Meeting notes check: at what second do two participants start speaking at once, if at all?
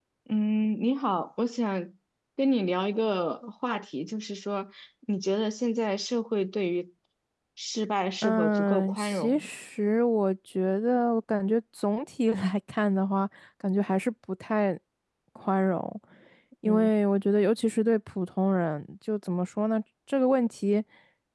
8 s

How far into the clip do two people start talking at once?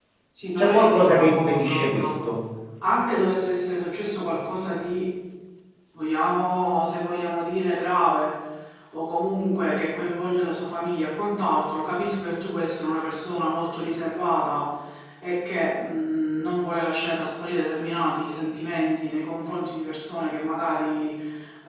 1 s

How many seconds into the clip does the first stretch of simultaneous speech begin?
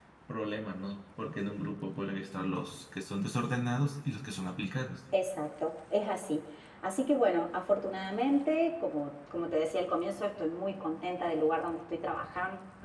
none

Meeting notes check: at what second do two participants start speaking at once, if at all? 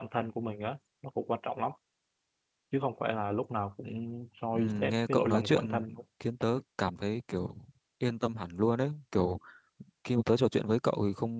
5 s

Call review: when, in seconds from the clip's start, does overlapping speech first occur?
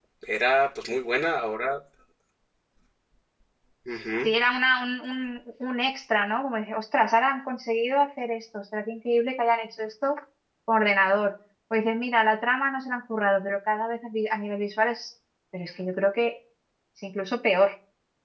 none

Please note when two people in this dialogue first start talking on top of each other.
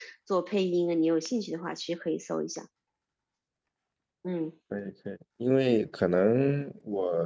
none

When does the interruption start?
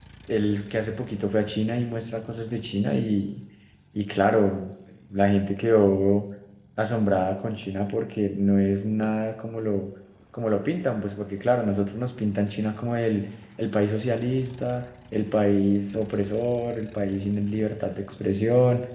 none

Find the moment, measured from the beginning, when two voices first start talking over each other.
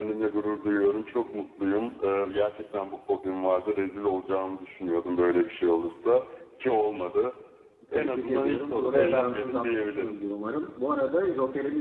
8 s

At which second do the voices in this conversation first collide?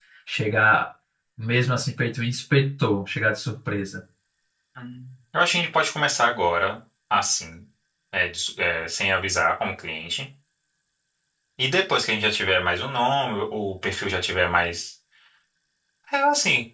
none

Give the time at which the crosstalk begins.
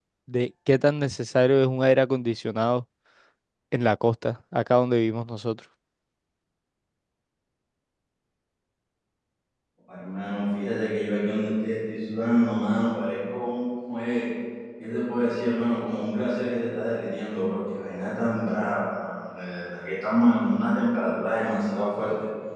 none

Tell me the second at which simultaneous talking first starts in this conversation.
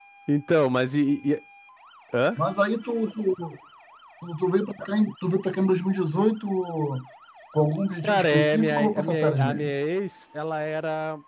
8 s

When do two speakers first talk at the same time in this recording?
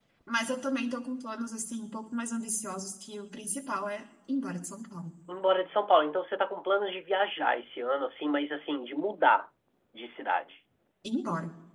none

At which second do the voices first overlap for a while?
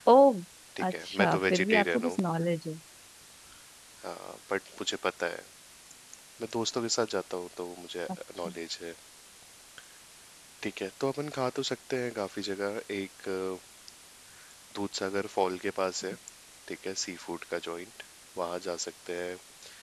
1 s

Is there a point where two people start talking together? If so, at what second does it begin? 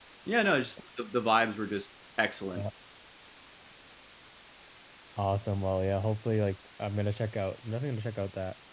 none

